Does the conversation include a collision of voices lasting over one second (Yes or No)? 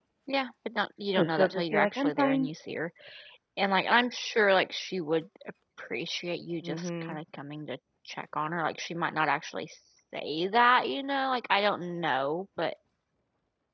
Yes